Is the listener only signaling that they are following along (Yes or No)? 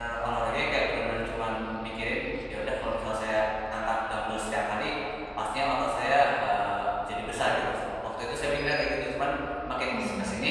Yes